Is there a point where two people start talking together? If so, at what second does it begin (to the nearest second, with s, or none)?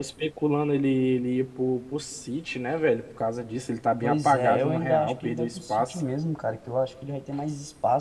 4 s